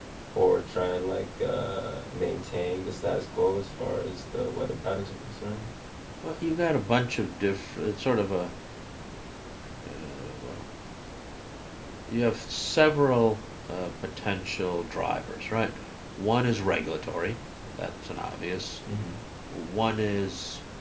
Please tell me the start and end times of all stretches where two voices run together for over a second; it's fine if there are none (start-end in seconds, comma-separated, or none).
none